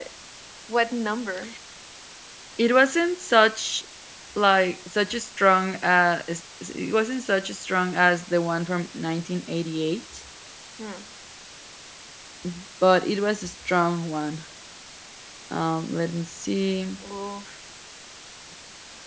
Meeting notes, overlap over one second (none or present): none